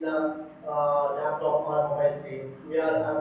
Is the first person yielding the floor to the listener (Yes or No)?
No